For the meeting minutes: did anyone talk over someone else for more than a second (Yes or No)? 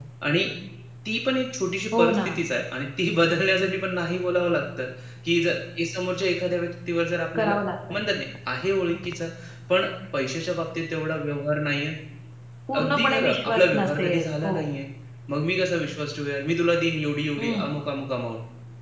Yes